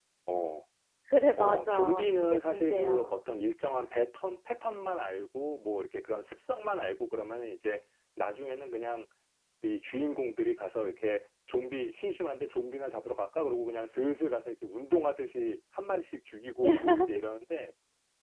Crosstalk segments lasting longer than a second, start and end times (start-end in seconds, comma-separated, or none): 1.4-3.2